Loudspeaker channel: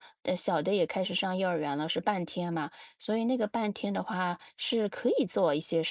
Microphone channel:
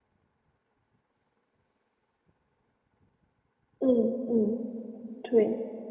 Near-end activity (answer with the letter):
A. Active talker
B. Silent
A